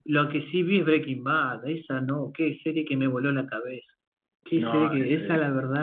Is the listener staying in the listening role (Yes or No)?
Yes